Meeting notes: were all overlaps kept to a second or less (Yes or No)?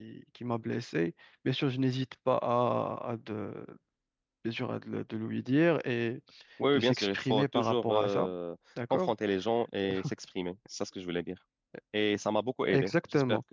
No